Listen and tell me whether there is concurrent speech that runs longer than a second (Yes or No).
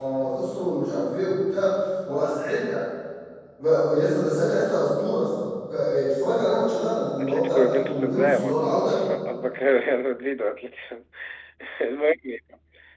Yes